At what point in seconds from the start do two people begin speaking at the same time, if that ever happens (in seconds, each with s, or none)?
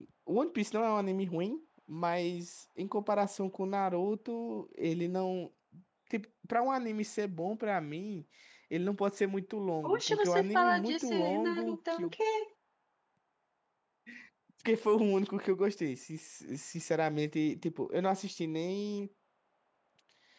9.8 s